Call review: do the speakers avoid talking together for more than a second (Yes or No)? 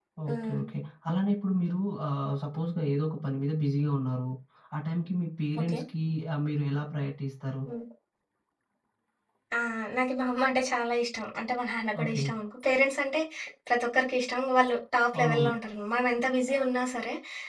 Yes